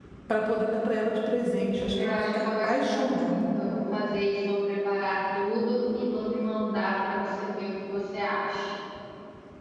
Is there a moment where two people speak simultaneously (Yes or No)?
Yes